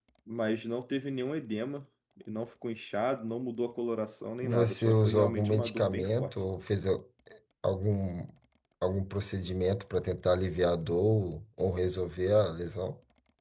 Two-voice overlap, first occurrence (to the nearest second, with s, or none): 4 s